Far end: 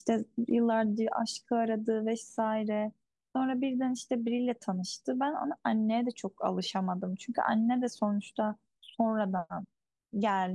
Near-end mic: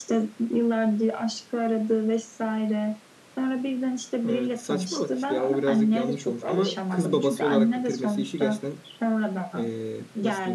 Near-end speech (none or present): present